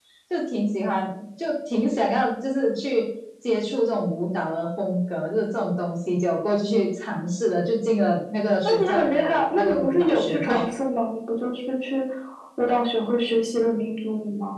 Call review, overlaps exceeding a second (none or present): present